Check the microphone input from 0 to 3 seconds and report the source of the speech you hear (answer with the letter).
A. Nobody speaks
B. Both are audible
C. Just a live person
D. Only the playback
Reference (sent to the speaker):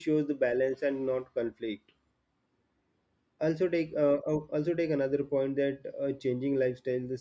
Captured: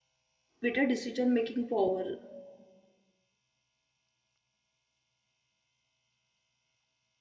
C